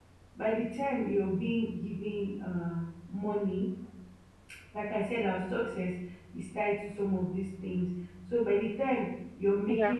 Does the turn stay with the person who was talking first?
Yes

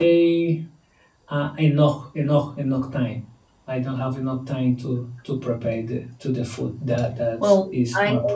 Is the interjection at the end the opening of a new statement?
Yes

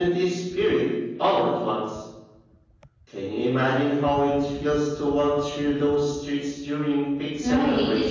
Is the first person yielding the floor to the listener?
Yes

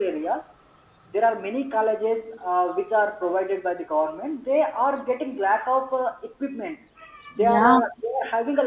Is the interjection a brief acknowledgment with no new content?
Yes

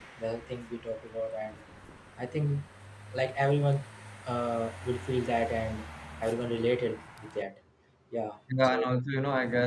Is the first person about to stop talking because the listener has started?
Yes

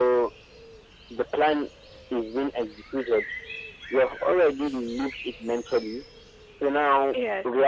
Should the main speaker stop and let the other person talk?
No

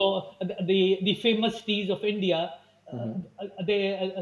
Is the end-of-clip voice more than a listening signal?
No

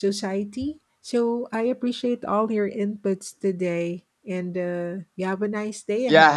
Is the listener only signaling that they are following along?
No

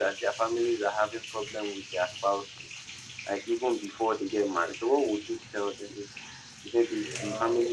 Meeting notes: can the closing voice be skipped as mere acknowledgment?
Yes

